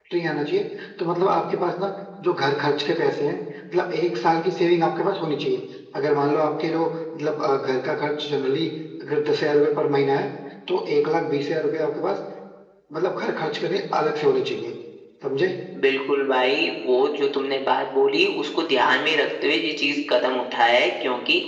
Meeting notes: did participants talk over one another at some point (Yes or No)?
No